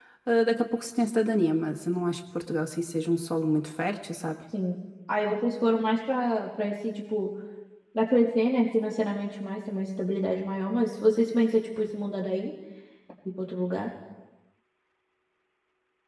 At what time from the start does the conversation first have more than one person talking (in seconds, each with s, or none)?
none